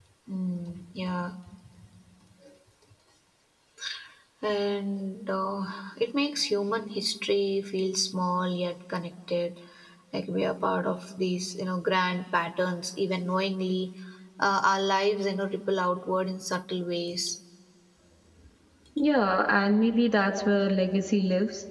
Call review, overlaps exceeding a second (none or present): none